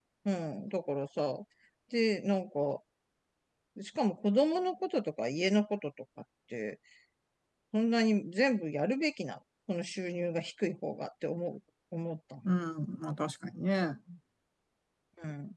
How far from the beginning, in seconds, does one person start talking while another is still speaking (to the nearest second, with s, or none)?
none